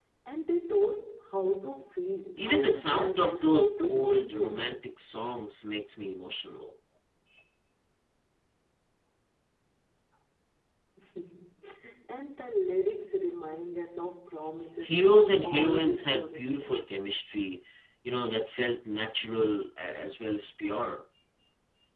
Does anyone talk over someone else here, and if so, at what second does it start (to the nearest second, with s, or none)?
2 s